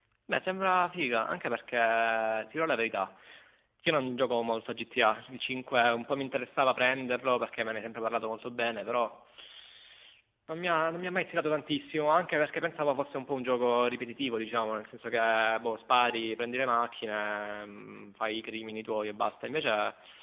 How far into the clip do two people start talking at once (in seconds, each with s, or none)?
none